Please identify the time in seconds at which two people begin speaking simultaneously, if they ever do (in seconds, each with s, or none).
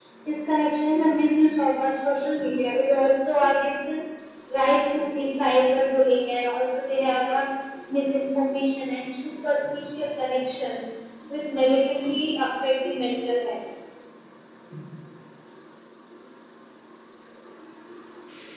none